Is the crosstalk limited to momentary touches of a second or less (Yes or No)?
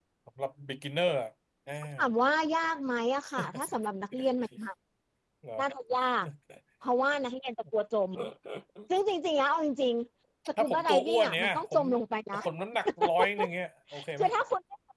No